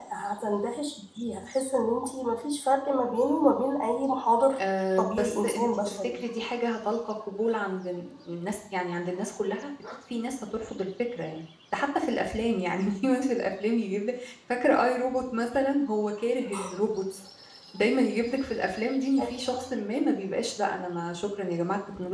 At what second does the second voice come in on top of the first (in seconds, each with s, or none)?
5.0 s